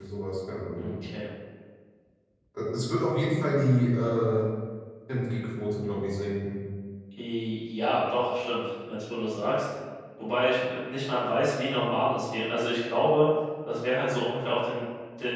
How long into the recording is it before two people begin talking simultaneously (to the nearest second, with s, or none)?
none